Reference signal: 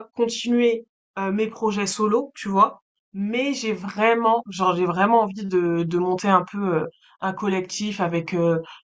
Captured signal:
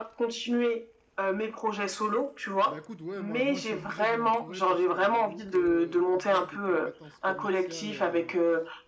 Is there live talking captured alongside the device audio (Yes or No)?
Yes